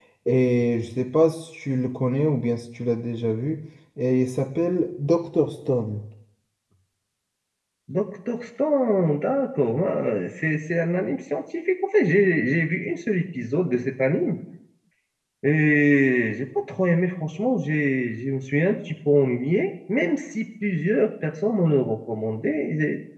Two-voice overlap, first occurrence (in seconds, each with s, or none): none